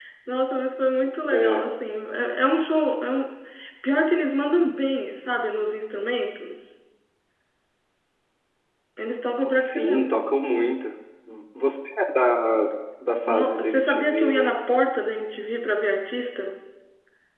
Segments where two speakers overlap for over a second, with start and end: 13.3-14.5

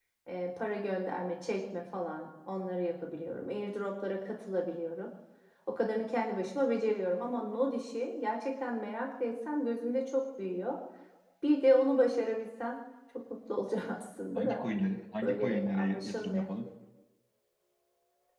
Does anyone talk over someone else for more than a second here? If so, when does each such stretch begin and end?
15.2-16.5

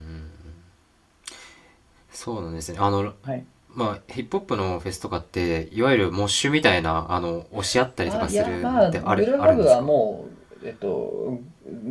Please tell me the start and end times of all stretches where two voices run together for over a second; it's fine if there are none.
8.0-9.9

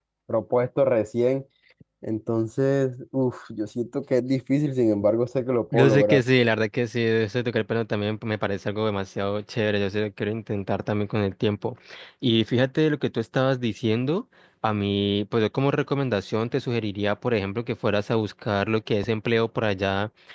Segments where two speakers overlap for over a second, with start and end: none

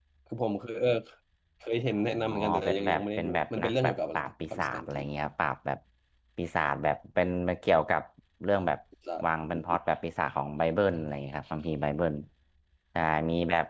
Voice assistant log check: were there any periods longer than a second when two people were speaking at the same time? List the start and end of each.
2.3-5.1

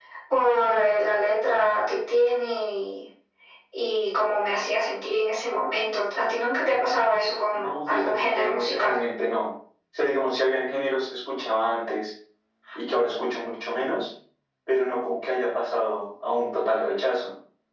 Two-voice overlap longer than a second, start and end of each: 7.5-8.9

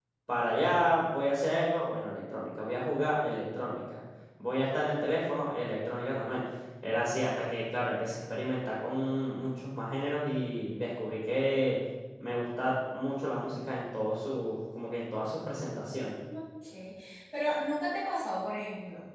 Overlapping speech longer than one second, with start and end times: none

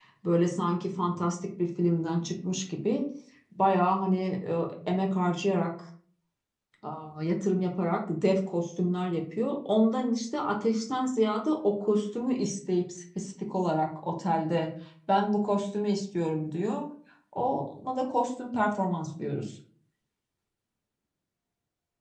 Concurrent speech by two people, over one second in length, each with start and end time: none

